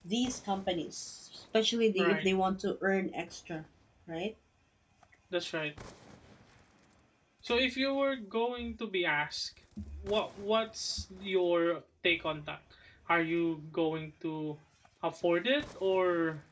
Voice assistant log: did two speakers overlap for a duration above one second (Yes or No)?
No